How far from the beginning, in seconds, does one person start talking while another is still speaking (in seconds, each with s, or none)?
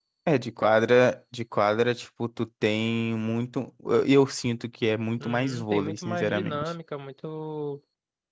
5.2 s